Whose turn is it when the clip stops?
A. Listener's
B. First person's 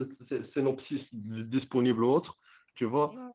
A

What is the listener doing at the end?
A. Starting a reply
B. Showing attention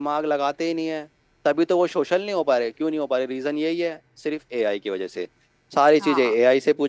B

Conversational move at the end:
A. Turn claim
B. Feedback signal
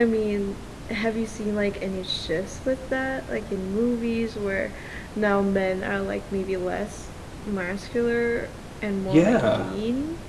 A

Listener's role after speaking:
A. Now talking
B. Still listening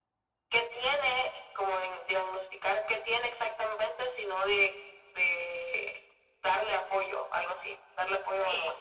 A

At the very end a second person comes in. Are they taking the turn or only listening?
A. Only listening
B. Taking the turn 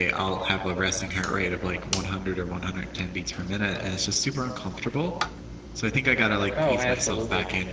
A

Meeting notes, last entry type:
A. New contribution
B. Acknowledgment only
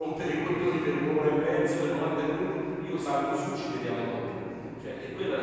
B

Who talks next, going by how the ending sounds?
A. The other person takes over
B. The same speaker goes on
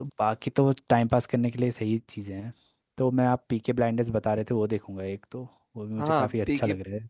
A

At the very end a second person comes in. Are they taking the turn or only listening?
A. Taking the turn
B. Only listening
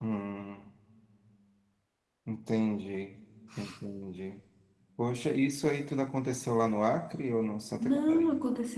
A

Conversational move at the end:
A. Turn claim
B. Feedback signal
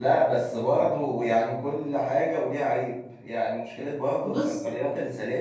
B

